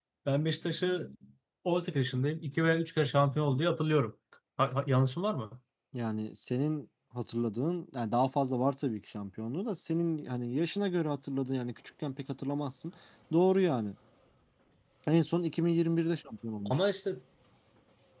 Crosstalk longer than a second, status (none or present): none